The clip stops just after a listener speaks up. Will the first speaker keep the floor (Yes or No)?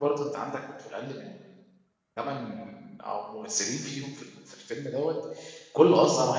Yes